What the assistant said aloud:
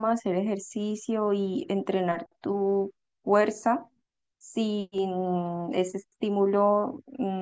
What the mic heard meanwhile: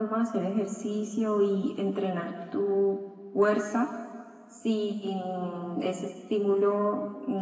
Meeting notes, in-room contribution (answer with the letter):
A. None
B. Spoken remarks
A